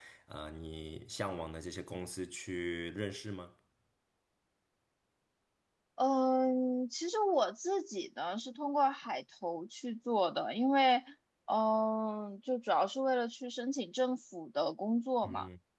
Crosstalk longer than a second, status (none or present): none